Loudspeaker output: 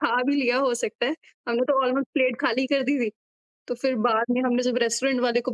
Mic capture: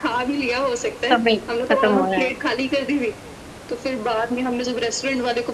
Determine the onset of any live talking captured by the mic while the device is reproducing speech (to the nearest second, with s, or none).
1 s